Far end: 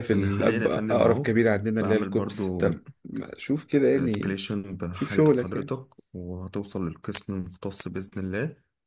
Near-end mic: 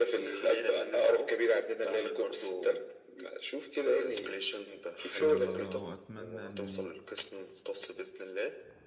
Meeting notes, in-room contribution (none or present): present